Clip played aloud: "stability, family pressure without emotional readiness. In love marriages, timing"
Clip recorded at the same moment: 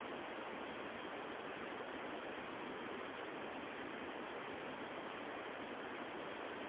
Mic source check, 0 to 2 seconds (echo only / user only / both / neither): neither